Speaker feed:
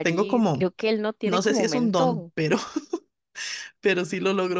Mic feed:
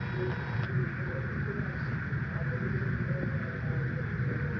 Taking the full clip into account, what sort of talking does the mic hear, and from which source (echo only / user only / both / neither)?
neither